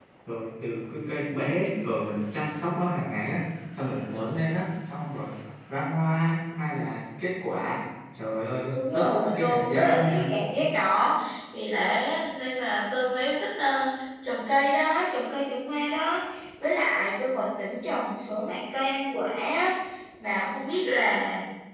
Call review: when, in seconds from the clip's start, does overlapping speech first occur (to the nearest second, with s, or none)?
9 s